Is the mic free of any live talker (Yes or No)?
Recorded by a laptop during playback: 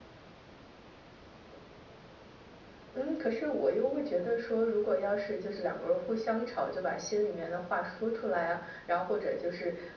Yes